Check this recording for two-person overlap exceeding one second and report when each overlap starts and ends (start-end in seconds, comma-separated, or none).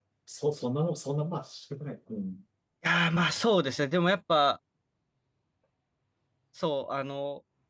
none